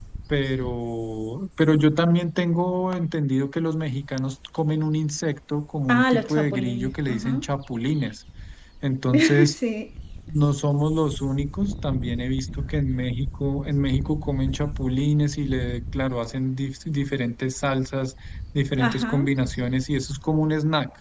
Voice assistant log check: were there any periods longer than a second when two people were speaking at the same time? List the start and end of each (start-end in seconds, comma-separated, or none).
5.9-7.4